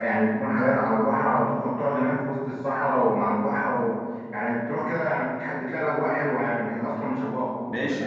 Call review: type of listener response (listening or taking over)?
taking over